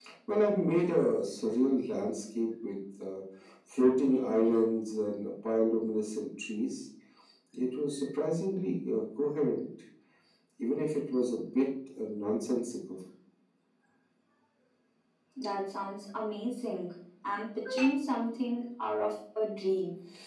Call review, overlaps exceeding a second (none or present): none